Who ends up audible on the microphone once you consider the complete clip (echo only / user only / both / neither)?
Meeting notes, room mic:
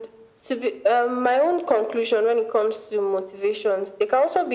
echo only